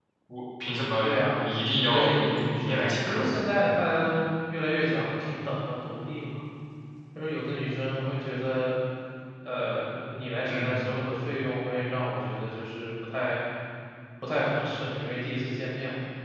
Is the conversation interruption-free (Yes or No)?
No